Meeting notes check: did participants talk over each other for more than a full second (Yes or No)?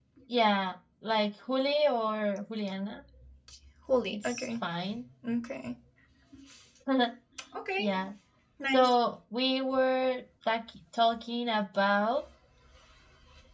No